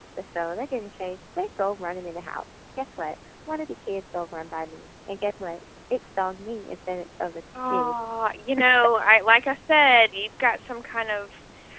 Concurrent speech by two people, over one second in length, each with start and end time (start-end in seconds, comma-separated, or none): none